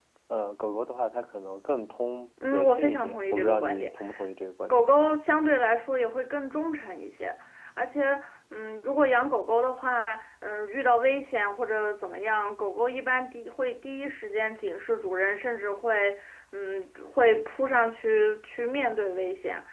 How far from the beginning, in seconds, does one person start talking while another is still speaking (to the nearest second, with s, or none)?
2 s